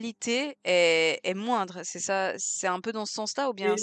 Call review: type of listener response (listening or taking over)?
taking over